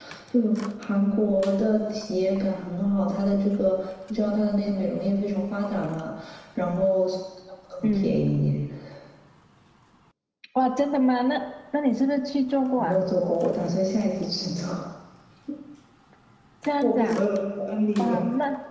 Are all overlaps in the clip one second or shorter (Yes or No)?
Yes